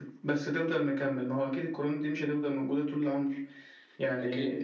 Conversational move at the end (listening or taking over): listening